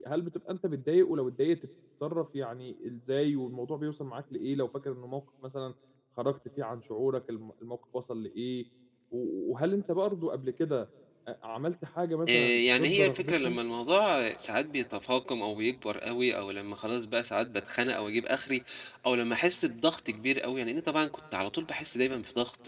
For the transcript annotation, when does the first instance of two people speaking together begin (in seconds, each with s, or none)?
12.3 s